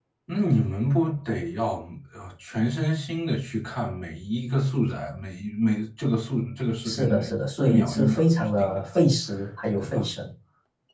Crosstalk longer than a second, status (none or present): present